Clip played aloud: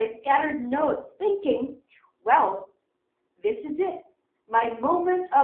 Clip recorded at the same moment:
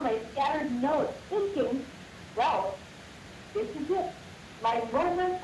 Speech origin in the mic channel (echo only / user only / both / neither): echo only